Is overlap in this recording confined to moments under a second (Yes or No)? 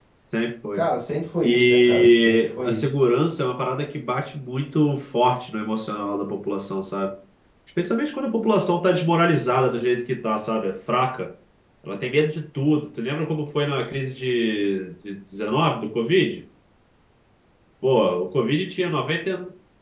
No